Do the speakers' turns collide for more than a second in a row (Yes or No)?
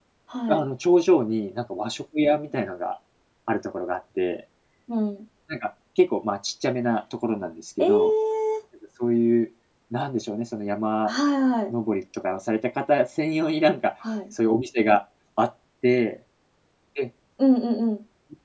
No